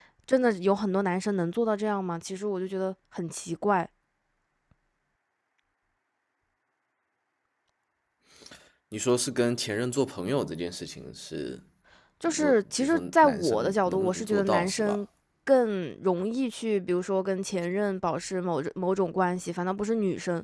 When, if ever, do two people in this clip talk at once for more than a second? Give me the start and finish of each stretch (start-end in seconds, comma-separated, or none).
12.3-15.0